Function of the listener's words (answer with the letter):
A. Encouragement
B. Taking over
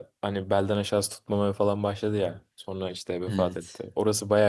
A